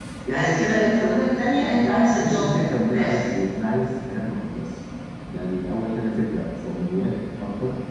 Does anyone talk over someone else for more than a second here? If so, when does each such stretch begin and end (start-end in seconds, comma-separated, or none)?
1.5-3.2